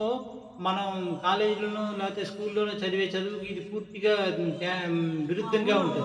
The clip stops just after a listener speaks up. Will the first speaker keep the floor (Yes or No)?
No